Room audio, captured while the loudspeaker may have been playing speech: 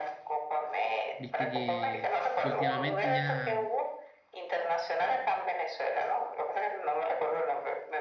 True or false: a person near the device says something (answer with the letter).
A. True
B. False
A